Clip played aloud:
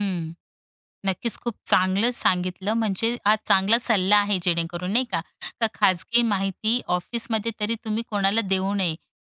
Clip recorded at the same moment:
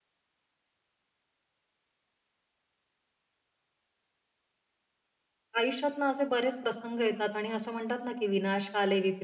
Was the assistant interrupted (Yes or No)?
Yes